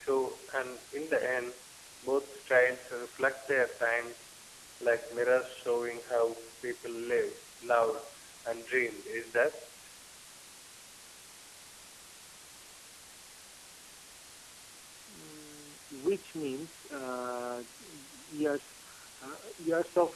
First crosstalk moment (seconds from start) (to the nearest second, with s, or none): none